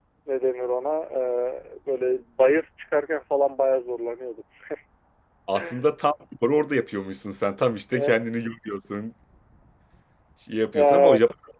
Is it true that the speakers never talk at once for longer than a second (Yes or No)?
Yes